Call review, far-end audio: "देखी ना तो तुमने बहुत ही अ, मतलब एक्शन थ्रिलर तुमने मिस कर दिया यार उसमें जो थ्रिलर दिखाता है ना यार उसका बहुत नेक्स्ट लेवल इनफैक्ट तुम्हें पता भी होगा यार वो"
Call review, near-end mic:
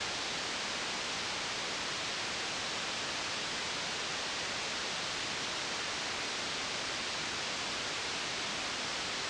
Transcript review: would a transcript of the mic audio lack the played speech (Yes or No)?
Yes